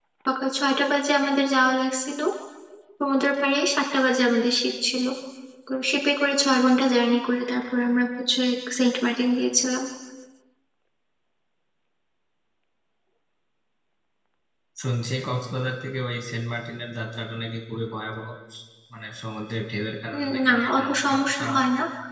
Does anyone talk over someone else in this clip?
Yes, from 20.1 s

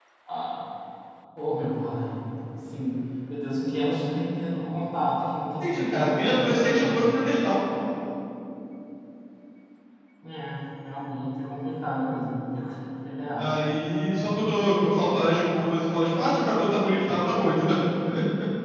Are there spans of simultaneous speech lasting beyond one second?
Yes, from 5.6 s

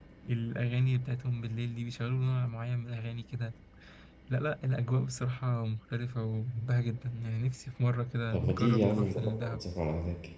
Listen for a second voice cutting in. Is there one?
Yes, from 8.3 s

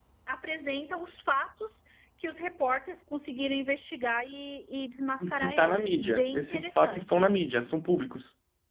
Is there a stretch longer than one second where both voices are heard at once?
Yes, from 5.2 s

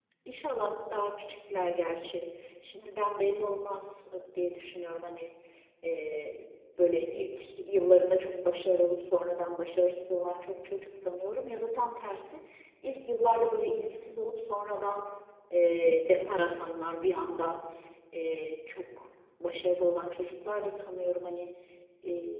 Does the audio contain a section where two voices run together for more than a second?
No

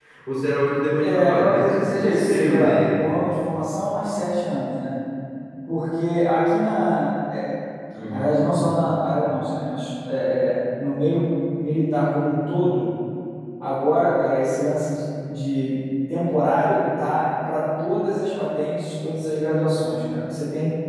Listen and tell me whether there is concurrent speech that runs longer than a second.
Yes, from 1.0 s

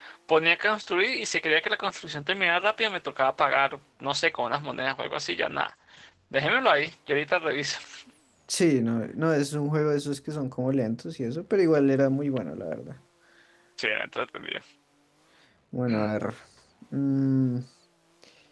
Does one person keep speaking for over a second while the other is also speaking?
No

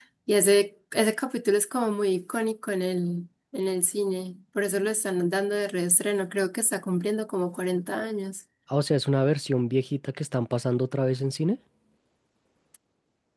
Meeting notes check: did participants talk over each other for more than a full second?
No

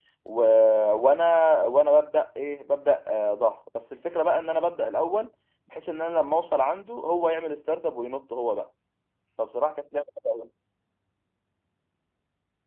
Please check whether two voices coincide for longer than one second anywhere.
No

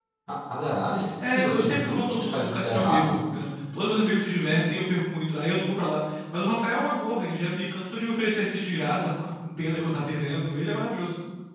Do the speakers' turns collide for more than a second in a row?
Yes, from 1.2 s

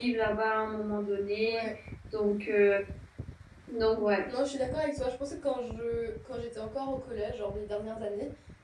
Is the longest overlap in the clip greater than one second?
No

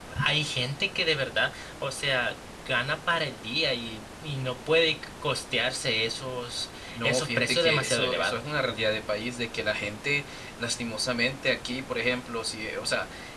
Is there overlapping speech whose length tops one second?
Yes, from 7.0 s

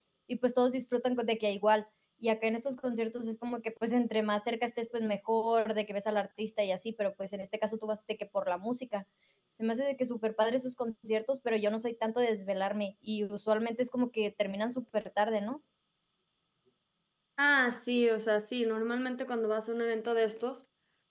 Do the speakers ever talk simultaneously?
No

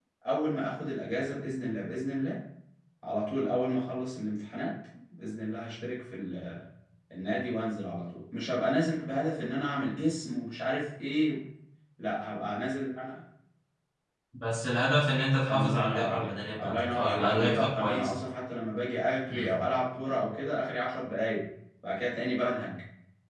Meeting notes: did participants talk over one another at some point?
Yes, from 15.5 s

